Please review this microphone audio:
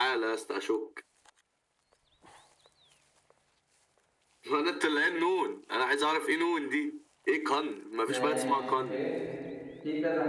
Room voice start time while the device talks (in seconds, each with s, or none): 8.1 s